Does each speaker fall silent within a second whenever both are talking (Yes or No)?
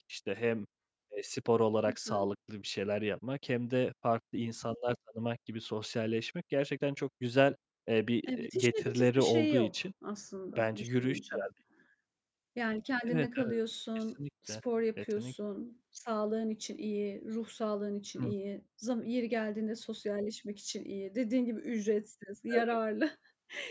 No